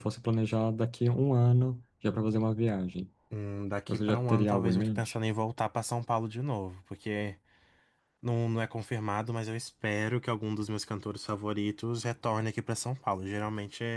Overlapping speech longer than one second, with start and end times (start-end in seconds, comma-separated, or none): 3.9-5.1